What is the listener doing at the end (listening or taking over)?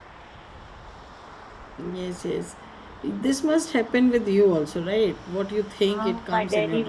taking over